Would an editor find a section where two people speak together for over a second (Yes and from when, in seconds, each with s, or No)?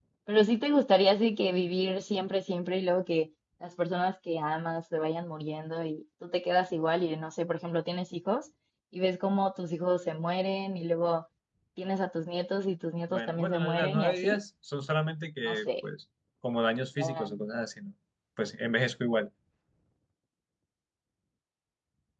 Yes, from 13.1 s